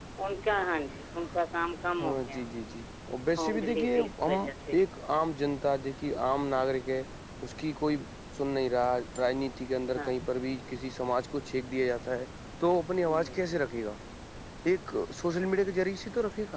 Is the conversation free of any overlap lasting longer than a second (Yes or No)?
No